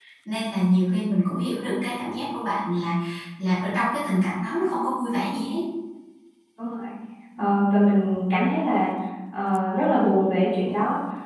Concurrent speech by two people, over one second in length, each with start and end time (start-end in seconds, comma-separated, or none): none